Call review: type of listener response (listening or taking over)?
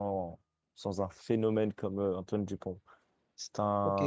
taking over